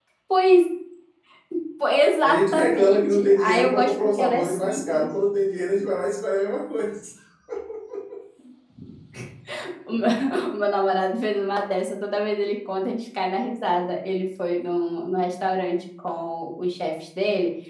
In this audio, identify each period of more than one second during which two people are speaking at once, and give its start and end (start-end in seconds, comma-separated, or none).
2.2-5.1